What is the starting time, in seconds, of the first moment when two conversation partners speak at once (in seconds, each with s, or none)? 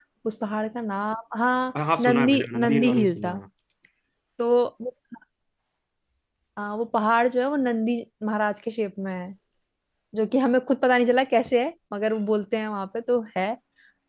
1.8 s